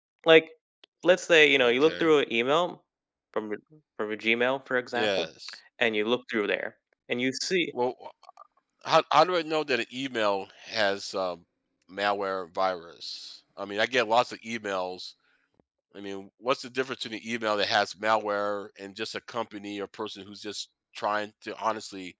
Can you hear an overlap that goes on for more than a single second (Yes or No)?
No